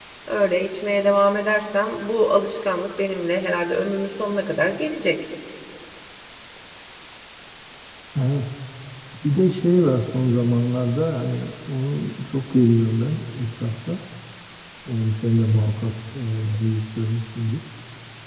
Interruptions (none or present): none